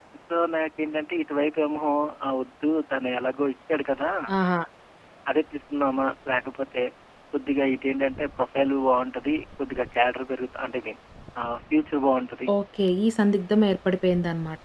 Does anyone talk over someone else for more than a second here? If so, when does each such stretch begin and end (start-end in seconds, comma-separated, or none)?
none